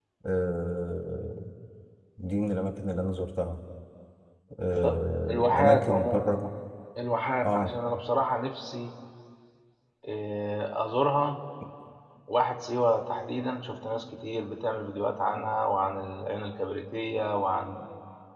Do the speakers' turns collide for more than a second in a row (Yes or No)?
Yes